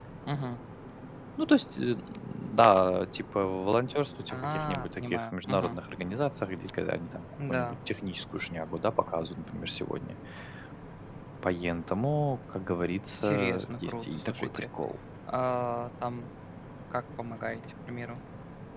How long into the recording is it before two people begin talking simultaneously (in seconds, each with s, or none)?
4.3 s